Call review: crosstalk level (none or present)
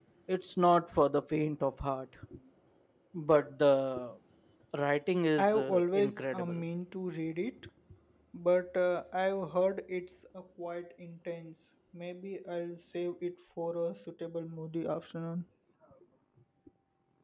present